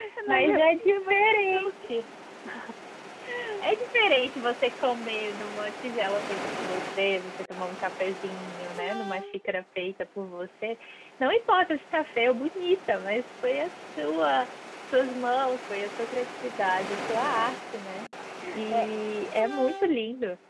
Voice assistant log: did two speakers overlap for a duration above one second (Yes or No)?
Yes